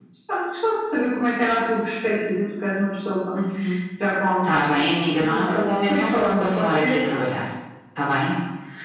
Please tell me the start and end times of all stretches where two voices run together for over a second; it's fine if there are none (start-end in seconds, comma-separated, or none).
4.4-7.0